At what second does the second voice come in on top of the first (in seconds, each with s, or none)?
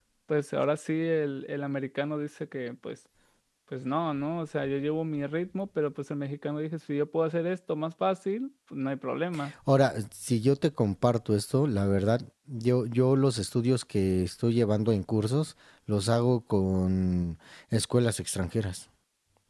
none